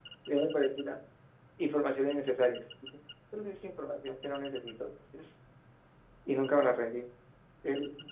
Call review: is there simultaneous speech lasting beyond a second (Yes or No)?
No